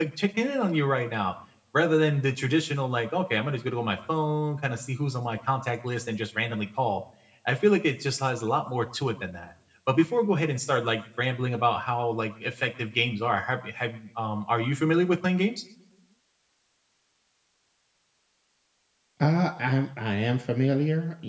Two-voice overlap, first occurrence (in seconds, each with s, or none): none